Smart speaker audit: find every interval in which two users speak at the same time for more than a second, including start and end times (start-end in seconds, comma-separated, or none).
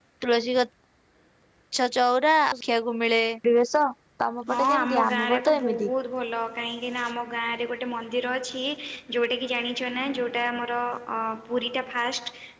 4.5-5.9